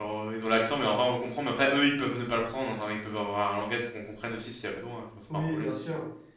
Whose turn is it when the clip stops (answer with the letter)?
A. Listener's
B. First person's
A